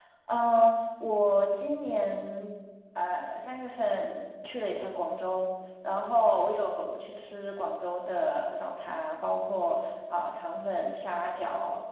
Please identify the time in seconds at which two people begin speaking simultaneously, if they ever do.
none

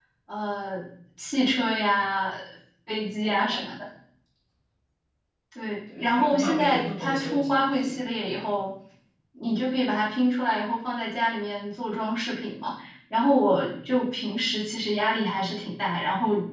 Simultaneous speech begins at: 6 s

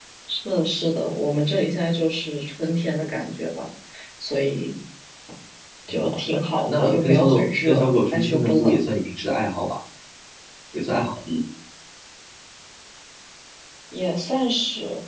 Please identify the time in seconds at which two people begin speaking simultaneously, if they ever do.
7 s

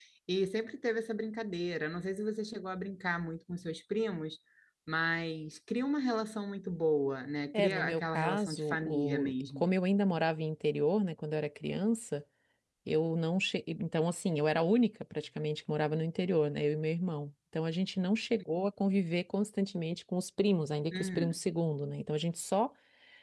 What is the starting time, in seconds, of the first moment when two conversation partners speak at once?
8 s

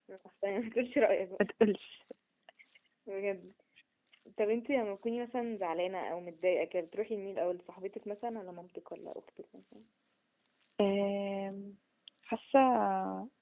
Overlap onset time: none

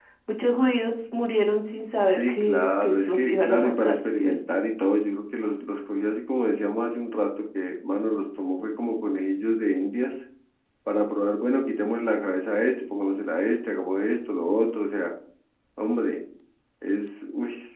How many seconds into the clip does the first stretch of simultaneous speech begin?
2 s

